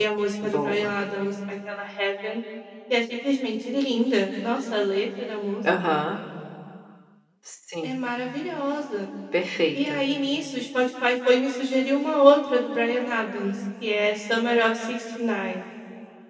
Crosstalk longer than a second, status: none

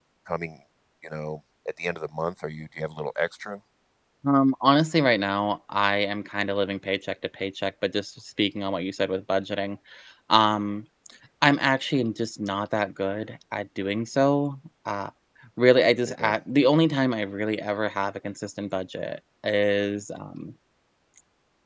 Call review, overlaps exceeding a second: none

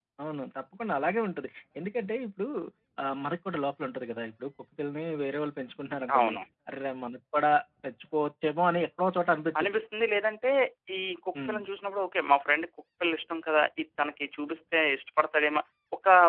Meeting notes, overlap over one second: none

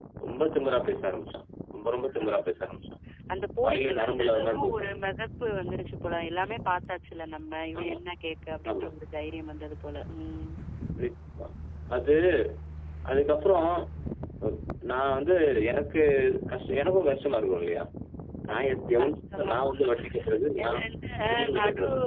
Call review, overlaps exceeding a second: present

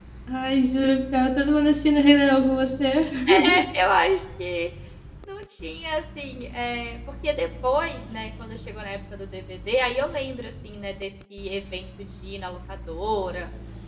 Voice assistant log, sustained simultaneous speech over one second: none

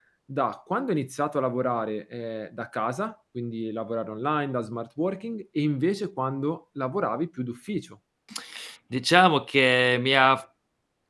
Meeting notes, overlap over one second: none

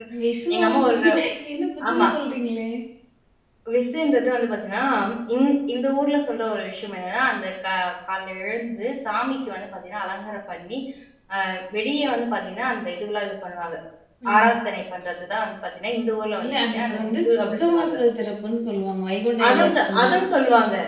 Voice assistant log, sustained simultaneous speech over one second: present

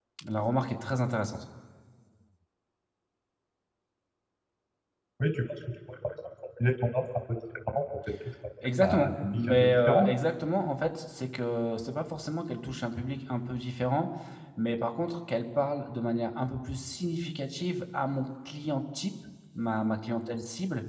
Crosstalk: present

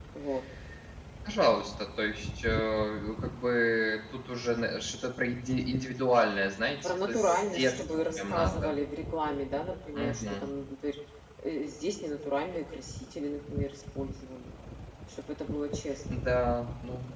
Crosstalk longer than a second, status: present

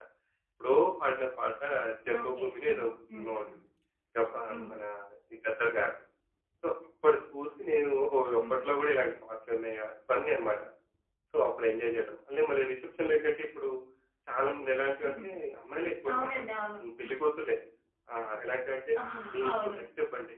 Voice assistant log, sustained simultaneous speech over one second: present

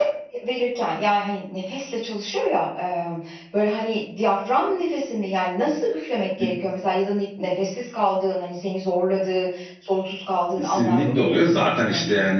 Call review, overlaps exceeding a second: present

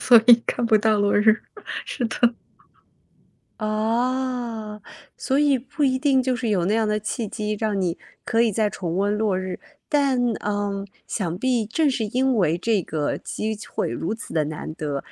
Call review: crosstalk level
none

